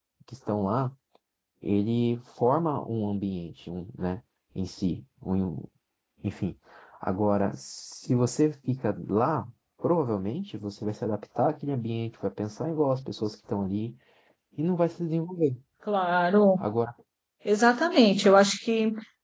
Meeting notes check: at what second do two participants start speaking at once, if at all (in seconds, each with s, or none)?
none